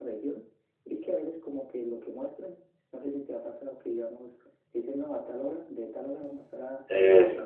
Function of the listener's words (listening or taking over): listening